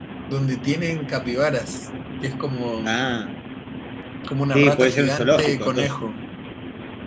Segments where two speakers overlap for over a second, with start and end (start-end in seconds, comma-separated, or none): 4.5-5.9